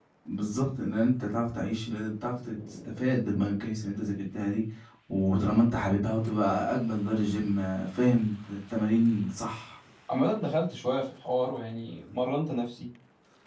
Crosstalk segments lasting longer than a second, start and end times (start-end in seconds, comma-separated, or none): none